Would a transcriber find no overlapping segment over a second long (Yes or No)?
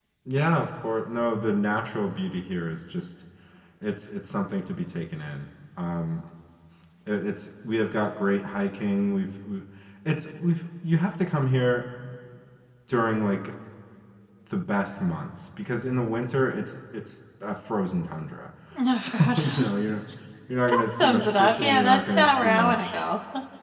No